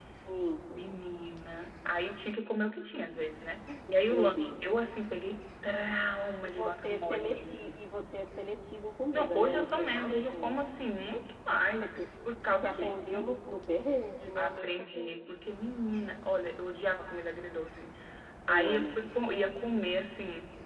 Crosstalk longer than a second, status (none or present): present